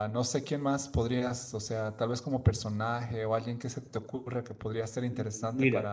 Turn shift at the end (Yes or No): Yes